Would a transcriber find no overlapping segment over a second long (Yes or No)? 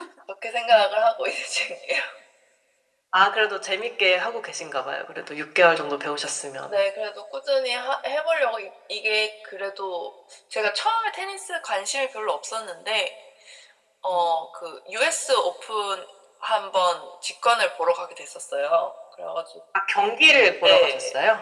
Yes